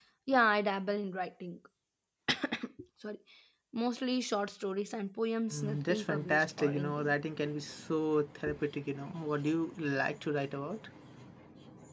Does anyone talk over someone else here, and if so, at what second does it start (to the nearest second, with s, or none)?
6 s